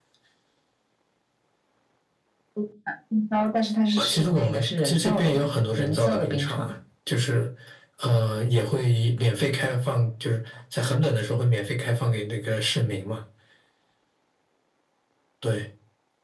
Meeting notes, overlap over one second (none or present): present